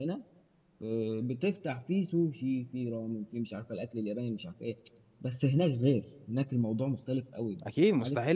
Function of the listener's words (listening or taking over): taking over